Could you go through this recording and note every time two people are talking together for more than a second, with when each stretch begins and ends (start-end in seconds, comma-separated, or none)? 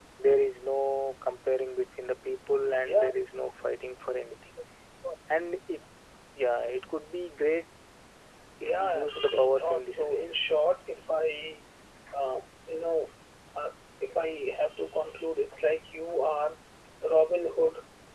8.7-10.2